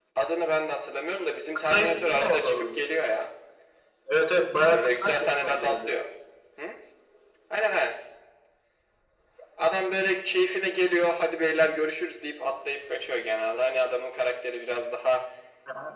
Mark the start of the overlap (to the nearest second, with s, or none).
2 s